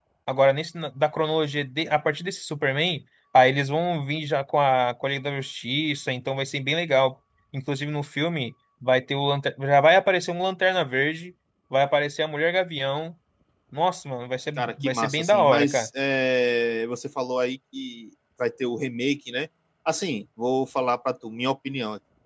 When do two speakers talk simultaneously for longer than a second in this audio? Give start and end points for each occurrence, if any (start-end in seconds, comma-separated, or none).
14.6-15.9